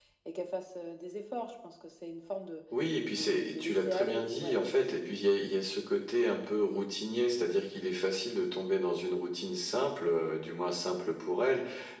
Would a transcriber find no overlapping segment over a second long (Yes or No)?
No